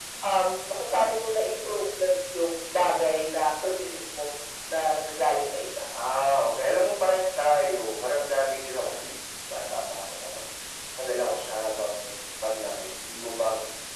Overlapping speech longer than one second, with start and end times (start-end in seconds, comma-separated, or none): none